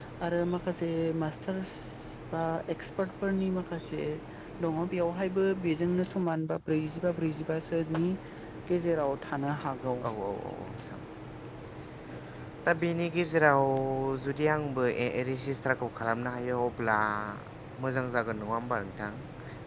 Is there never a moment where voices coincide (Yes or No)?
Yes